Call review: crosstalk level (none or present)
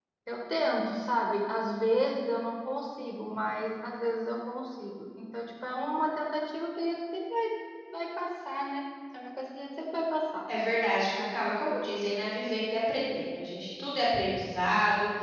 none